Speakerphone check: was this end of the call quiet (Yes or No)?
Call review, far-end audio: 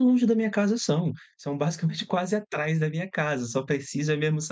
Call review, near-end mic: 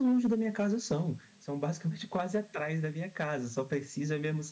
Yes